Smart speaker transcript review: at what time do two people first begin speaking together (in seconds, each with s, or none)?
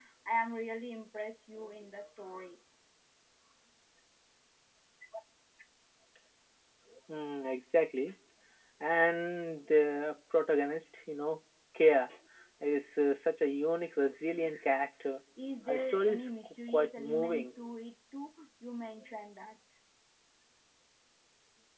15.7 s